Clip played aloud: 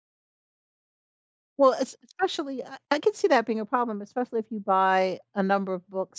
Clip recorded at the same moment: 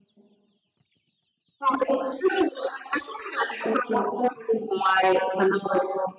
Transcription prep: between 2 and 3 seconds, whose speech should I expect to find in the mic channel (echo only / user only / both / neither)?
echo only